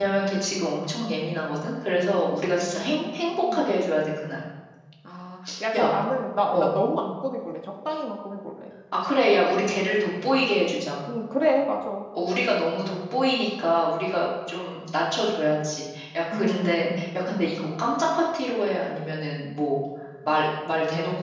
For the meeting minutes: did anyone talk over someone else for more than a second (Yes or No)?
Yes